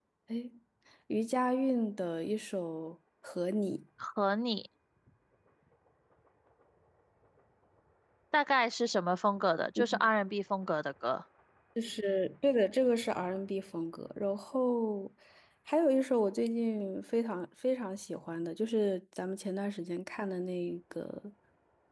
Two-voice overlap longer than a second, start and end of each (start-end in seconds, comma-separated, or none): none